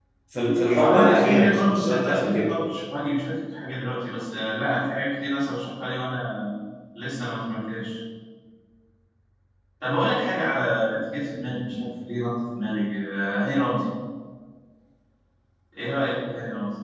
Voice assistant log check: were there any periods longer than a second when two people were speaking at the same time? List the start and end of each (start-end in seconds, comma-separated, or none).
0.8-2.5